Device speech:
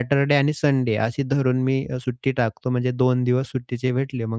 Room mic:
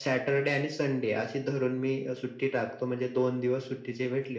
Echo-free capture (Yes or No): No